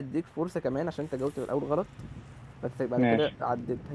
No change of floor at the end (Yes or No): Yes